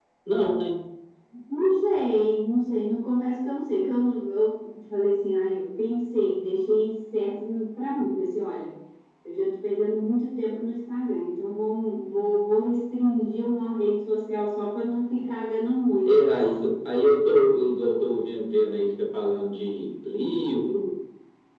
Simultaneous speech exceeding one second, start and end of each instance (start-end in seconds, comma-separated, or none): none